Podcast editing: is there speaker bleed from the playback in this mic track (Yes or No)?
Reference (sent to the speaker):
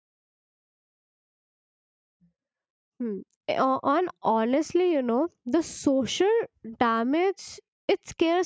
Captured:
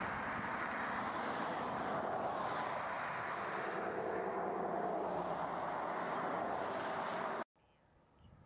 No